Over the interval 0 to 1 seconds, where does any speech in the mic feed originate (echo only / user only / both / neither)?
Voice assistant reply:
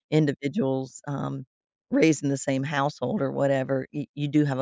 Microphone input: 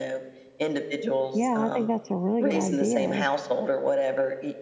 echo only